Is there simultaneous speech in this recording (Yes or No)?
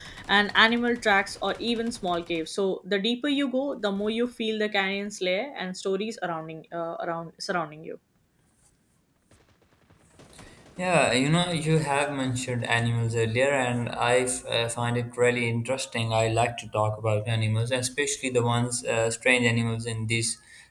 No